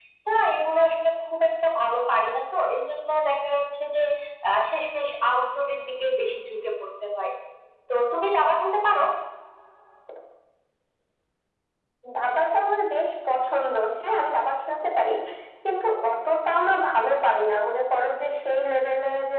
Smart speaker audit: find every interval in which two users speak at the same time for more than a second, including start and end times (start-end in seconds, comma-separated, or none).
none